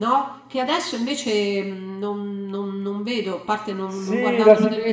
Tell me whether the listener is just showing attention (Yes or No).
No